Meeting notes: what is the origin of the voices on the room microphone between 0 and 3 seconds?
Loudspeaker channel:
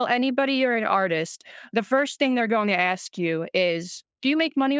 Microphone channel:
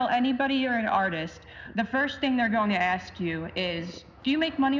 echo only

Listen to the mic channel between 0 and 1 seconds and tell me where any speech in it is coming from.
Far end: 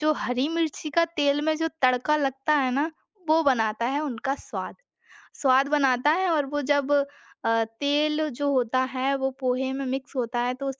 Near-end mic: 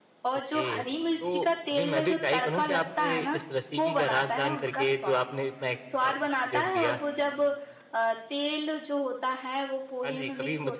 both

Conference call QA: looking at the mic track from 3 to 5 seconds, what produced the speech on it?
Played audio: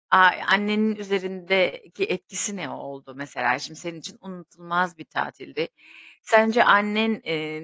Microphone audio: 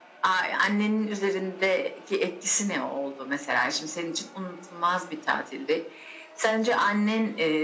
echo only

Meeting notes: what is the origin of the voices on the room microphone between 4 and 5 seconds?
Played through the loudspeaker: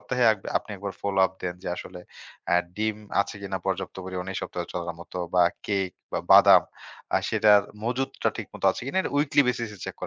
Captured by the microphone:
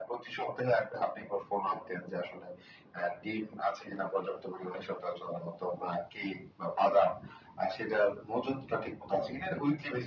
echo only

